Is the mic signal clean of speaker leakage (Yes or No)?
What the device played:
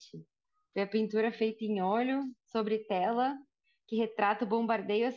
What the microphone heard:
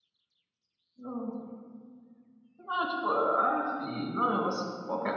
Yes